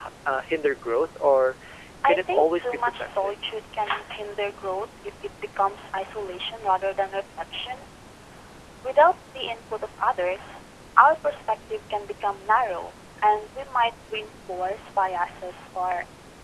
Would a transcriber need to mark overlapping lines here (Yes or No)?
Yes